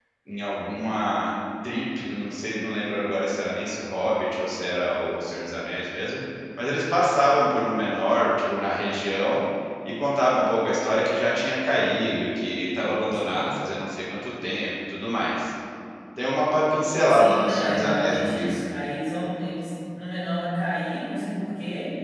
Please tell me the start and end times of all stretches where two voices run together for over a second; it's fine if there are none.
17.1-18.6

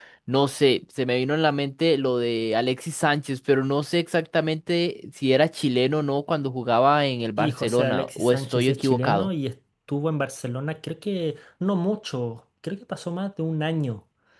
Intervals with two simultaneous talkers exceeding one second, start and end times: 7.4-9.3

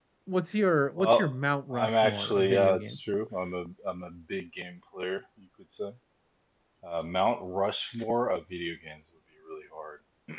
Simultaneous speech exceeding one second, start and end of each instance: 1.7-3.0

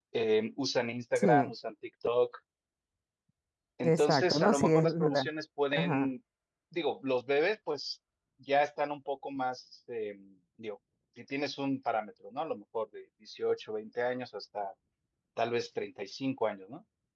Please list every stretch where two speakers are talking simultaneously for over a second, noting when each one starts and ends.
3.8-5.3

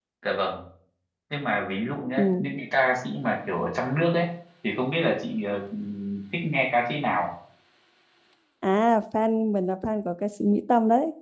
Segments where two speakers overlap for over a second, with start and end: none

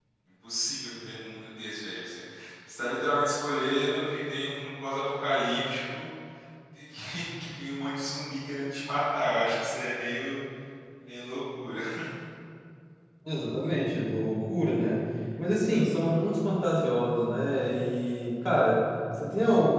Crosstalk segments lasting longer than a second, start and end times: none

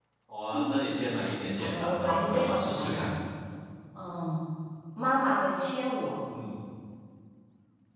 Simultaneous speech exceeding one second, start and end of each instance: 1.6-3.1

